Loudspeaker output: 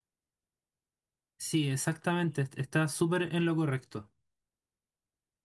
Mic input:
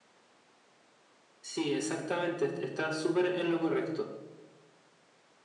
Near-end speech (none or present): none